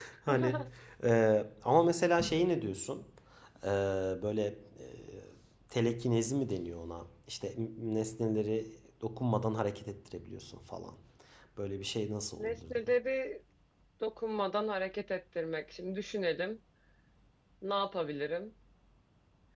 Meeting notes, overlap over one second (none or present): none